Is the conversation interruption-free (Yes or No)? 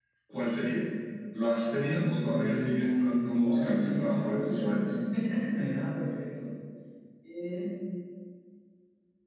No